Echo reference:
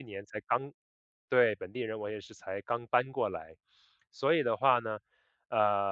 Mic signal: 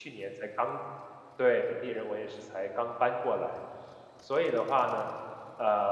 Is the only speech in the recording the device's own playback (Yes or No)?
Yes